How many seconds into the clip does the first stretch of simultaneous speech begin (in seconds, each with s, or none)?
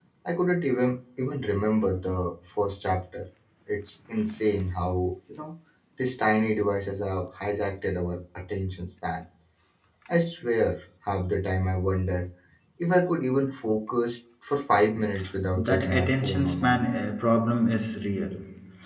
15.5 s